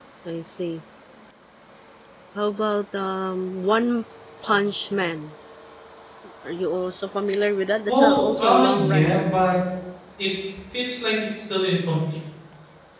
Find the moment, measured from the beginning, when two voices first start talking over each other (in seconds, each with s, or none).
7.8 s